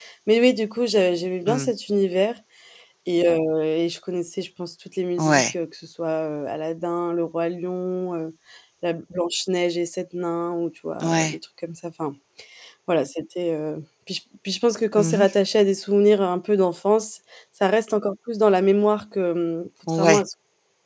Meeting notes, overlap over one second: none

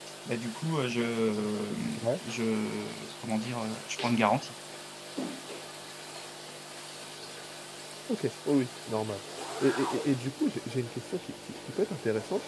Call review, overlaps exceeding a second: none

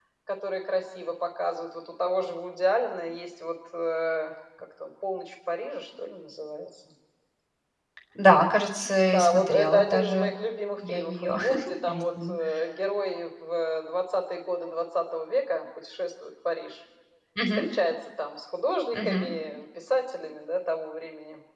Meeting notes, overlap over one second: present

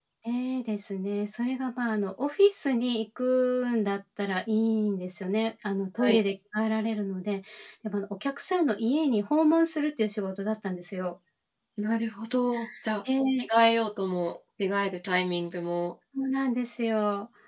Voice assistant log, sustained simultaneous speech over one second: none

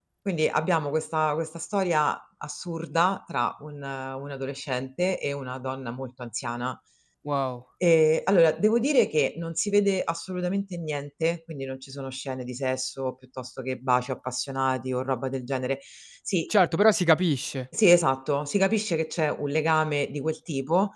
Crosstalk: none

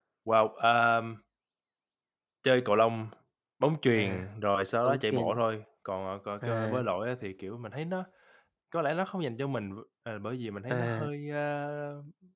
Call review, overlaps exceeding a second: none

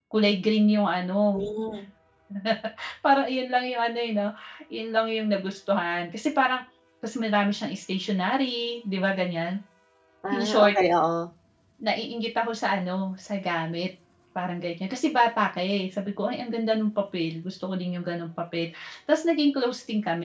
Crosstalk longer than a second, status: none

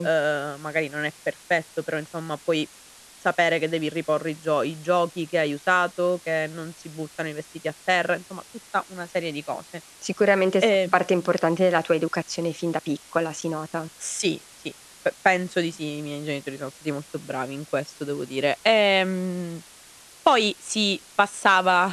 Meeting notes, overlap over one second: none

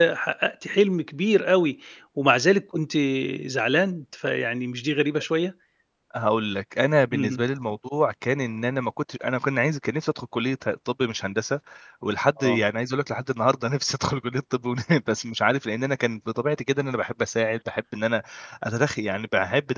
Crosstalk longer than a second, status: none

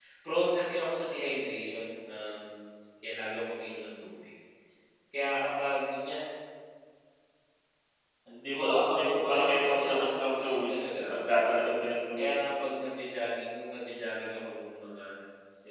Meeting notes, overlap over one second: present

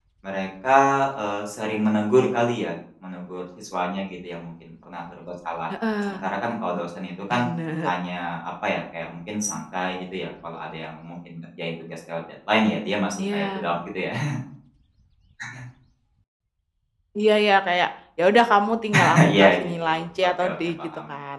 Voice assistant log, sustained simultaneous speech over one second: present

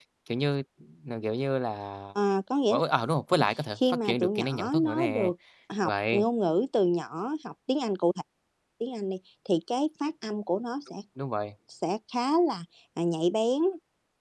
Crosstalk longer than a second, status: present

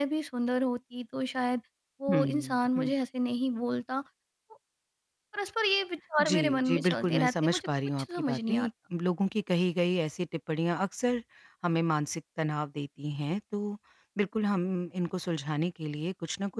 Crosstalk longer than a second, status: present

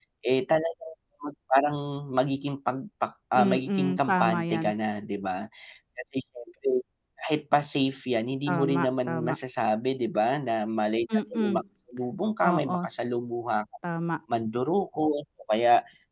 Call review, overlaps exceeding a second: present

